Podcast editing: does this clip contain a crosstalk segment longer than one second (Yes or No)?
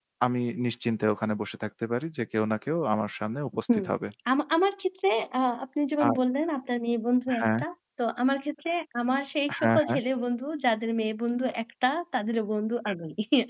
No